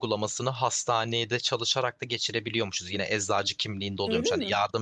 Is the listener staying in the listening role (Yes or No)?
Yes